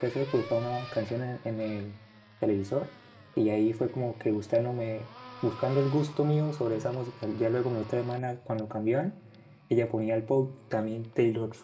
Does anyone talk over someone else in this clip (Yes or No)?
No